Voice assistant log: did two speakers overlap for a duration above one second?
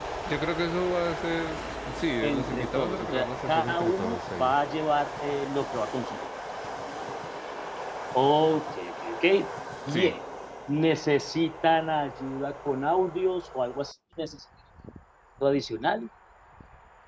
Yes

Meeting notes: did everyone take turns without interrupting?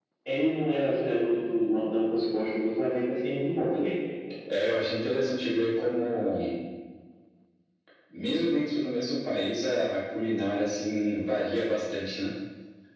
Yes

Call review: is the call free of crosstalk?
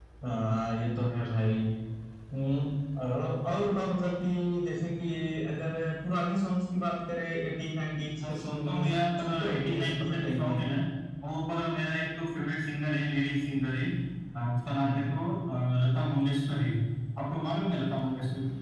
No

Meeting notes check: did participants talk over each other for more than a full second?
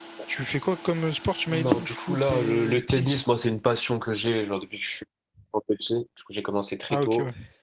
Yes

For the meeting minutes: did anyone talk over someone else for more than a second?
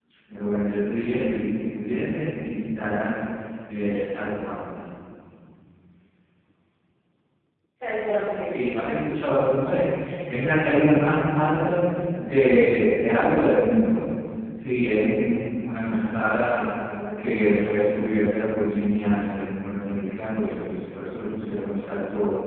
No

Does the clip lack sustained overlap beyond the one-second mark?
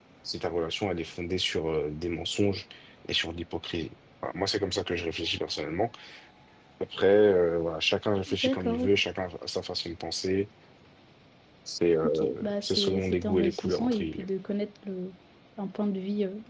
No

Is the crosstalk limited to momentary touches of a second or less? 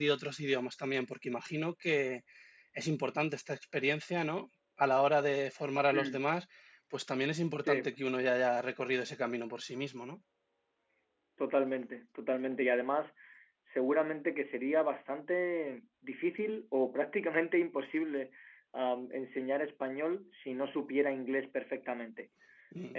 Yes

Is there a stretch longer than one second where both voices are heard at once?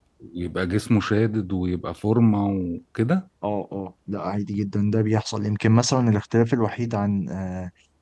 No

